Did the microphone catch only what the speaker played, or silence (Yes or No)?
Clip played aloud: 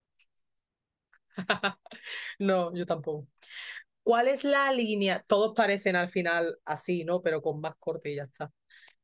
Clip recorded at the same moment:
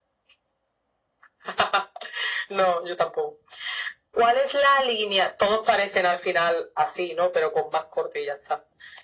Yes